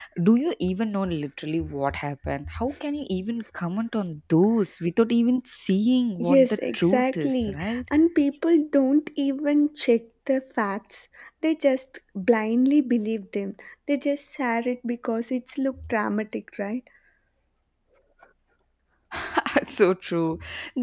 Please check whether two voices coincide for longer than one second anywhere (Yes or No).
Yes